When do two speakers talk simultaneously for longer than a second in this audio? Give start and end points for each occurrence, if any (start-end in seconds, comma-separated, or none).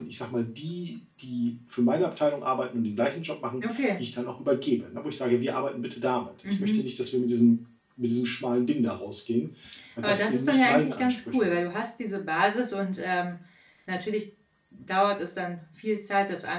10.0-11.6